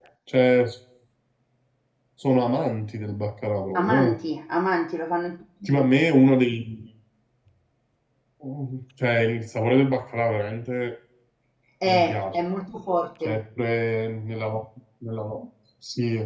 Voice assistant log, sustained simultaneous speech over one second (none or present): none